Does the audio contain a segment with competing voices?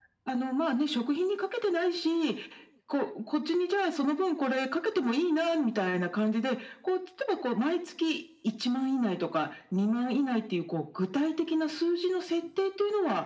No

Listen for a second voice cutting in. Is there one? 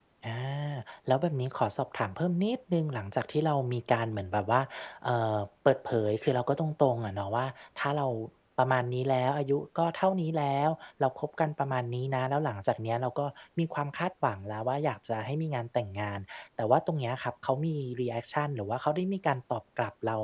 No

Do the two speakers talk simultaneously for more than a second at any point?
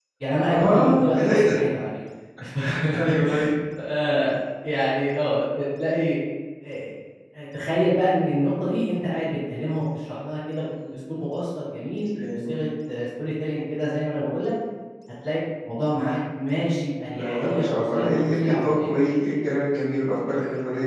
Yes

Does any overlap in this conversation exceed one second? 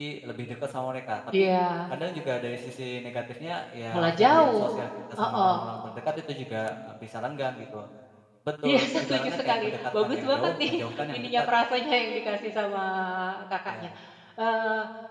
Yes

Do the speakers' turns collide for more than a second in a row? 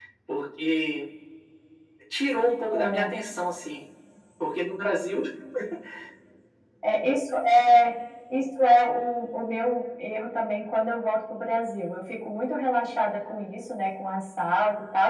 No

